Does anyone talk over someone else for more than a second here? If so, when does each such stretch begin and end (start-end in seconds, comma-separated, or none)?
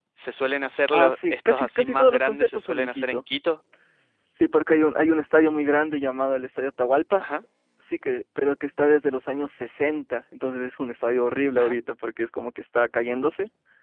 0.9-3.2